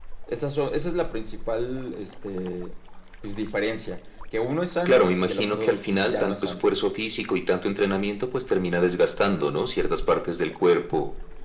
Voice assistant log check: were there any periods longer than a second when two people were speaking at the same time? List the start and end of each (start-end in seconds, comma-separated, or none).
4.9-6.6